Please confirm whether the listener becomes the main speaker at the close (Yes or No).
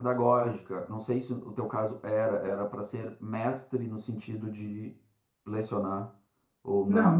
Yes